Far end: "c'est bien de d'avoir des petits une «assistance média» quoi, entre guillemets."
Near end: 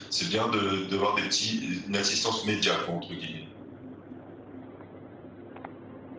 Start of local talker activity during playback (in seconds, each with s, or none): none